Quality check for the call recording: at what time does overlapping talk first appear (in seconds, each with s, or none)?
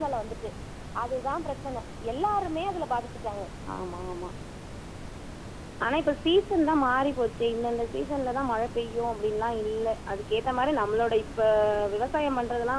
none